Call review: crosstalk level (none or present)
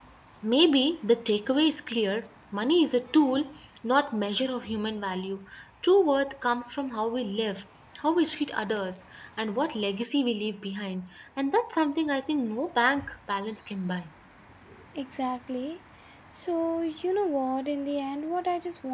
none